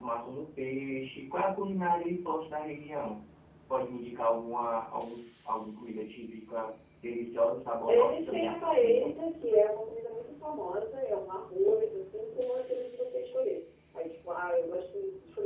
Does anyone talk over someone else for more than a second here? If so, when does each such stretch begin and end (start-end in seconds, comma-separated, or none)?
7.9-9.1